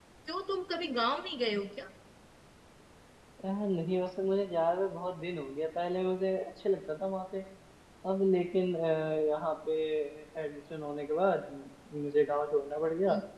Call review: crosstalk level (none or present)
none